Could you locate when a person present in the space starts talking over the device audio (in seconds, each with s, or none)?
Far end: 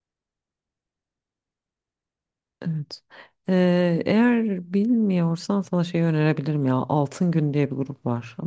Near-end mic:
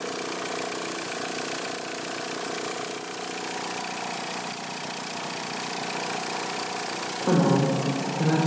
7.2 s